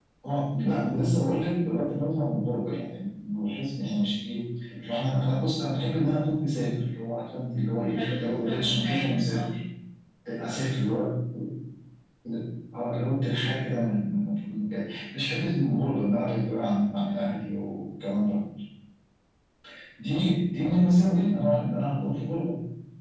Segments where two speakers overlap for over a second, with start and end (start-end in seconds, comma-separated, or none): 7.8-9.5